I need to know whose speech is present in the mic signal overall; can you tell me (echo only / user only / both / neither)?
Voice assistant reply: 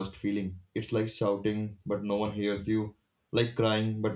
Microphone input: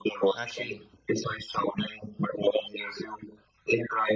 both